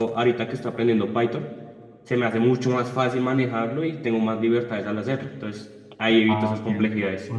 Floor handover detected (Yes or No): Yes